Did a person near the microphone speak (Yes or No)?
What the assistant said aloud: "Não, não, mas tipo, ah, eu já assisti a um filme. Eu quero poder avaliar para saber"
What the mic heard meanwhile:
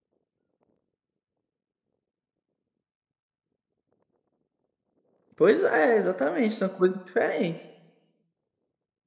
Yes